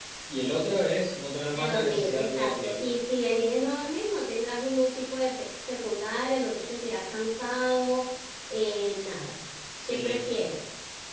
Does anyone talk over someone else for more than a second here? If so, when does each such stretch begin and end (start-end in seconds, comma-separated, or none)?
1.5-2.8